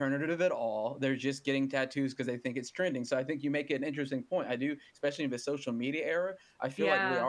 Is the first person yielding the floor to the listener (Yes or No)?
No